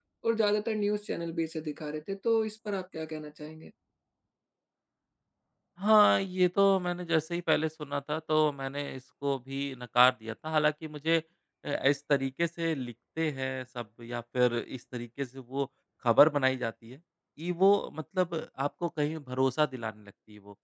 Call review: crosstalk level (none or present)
none